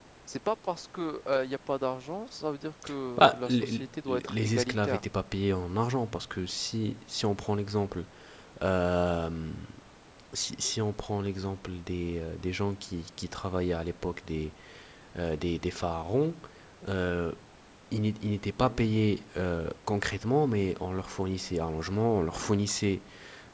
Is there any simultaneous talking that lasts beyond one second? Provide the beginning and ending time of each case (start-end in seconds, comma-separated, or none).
3.2-5.0